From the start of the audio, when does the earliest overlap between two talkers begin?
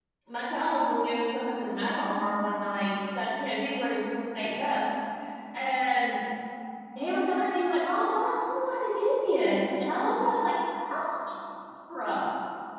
none

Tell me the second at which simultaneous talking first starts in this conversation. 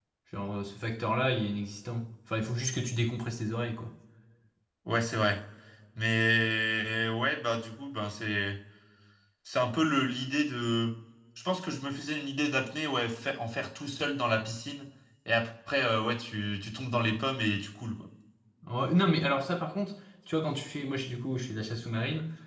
none

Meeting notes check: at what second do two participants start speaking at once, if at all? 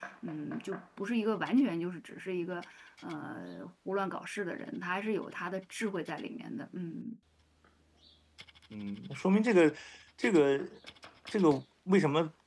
none

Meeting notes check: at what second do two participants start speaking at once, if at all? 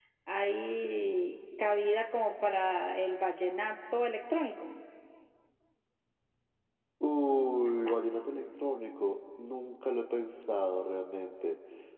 none

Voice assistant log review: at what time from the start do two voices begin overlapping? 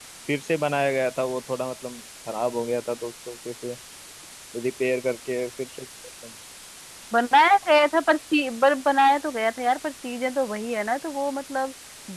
none

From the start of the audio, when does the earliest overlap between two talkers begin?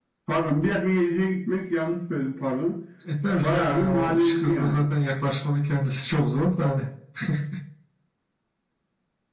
3.4 s

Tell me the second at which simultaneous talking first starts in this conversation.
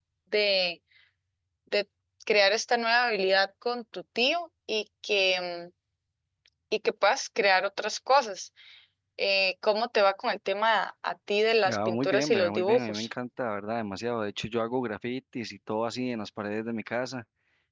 11.7 s

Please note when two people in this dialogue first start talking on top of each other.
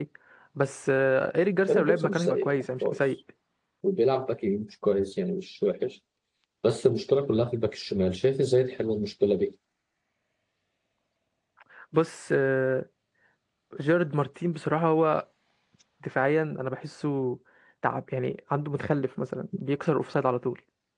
1.7 s

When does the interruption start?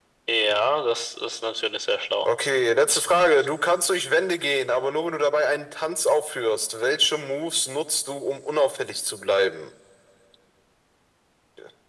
none

